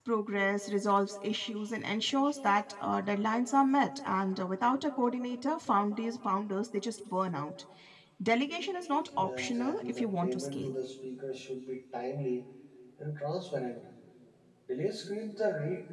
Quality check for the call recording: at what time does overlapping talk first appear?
9 s

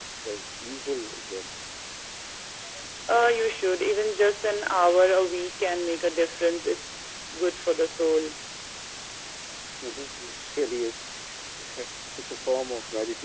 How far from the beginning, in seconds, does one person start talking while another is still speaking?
none

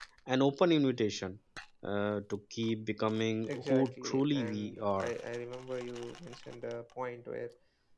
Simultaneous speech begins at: 3 s

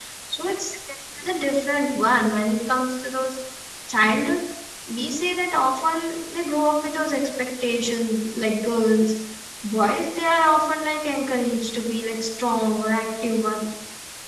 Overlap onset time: none

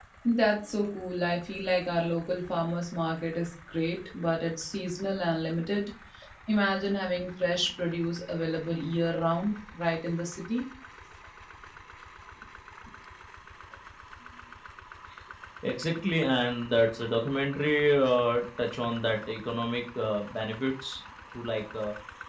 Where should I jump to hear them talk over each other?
none

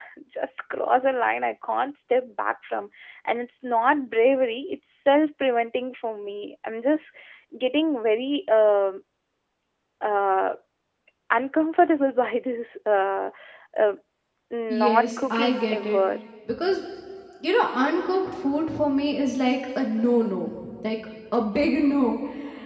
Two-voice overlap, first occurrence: 15 s

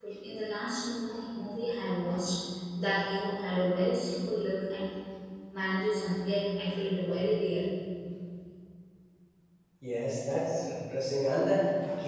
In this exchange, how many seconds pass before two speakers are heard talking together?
none

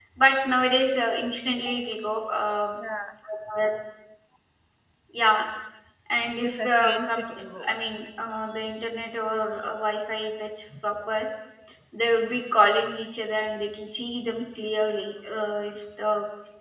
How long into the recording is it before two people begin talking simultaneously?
6 s

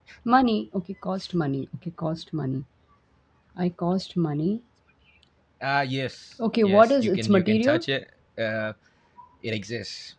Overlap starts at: 6 s

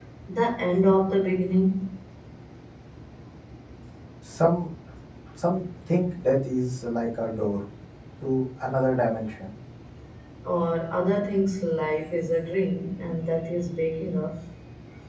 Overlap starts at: none

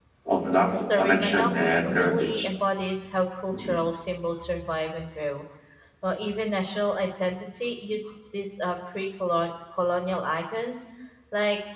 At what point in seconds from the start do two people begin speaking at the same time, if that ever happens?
1 s

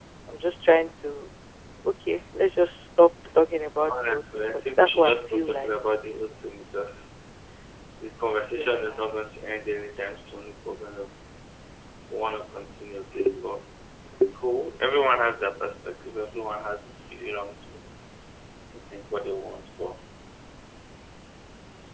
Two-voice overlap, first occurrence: 4 s

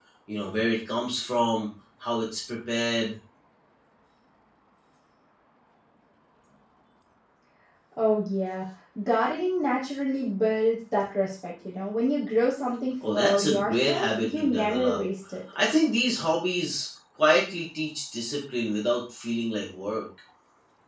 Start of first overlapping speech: 13 s

